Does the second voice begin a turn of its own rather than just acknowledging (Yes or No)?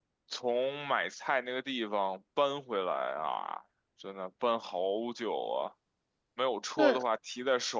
No